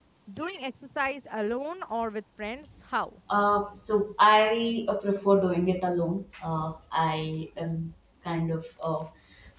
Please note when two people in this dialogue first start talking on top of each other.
none

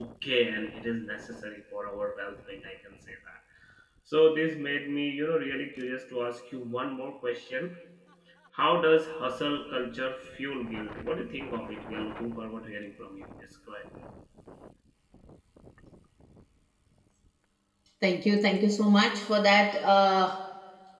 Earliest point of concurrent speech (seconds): none

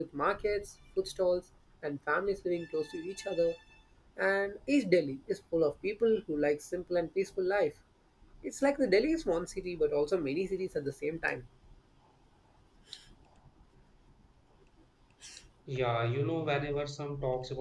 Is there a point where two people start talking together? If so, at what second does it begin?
none

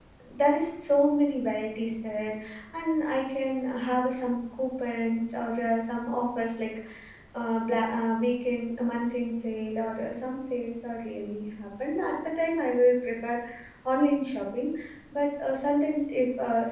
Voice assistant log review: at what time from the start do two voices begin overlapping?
none

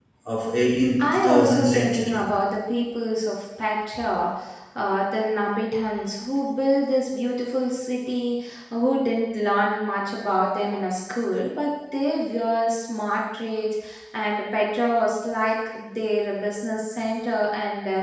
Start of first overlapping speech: 1.0 s

